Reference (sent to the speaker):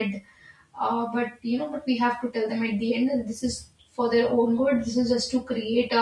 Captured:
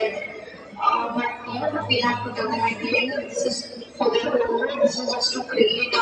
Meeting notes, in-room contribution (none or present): present